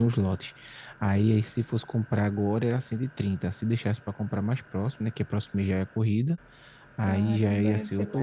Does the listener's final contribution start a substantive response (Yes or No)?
Yes